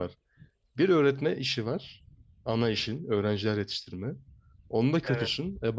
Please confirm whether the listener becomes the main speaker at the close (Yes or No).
No